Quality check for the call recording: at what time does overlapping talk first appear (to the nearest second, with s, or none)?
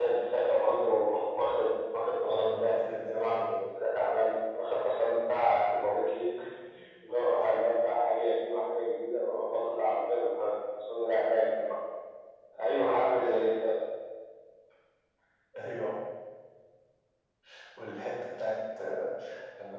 2 s